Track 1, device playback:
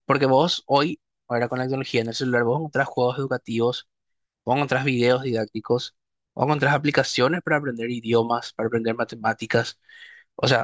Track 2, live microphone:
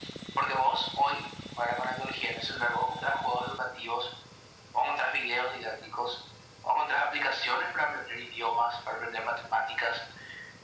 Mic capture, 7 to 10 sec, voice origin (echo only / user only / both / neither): echo only